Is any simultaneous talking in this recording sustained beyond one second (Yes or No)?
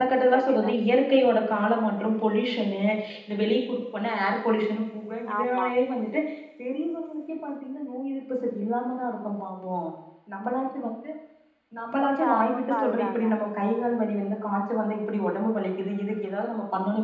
Yes